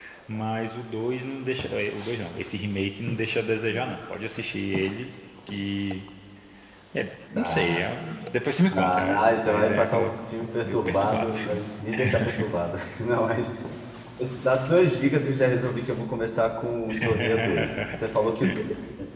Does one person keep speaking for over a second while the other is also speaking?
Yes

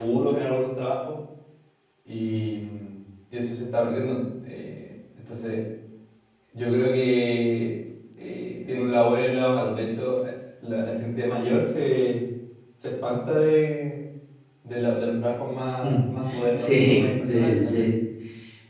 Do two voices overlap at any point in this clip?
Yes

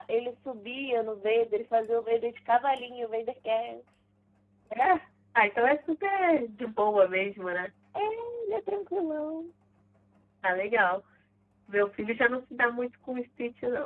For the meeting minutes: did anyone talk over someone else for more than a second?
No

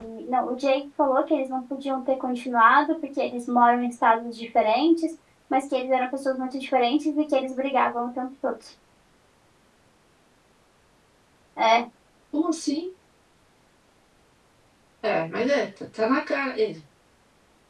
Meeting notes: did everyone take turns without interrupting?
Yes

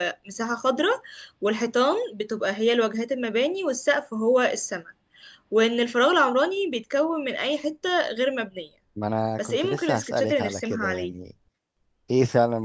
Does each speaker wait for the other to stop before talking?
No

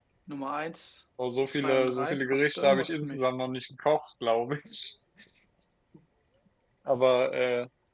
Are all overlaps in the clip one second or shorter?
No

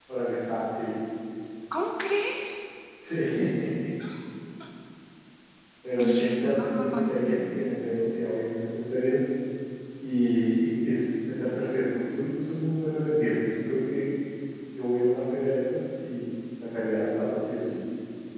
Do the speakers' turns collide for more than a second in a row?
Yes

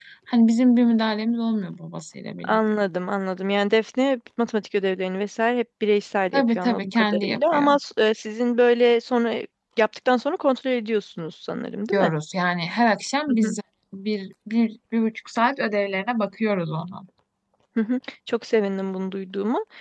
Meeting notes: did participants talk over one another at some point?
Yes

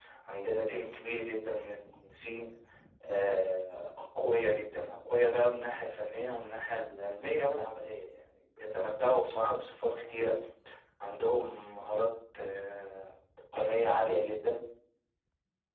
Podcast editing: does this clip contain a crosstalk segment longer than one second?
No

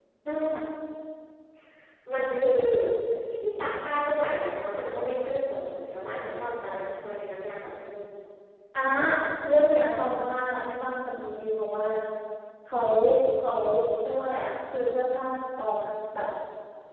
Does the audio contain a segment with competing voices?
No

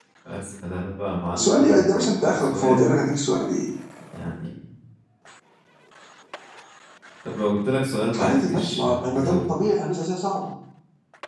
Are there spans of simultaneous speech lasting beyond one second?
Yes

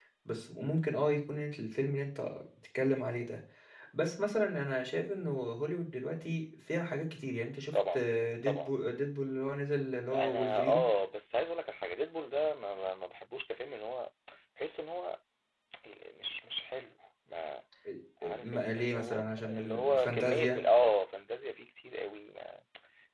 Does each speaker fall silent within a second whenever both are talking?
No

